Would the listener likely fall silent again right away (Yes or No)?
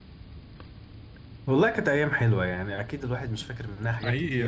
Yes